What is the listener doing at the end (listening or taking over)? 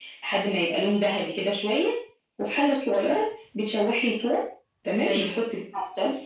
listening